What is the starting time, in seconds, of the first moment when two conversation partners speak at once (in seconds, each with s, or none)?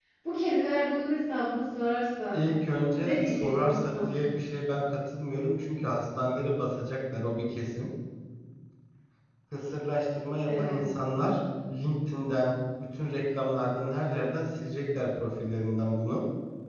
3.0 s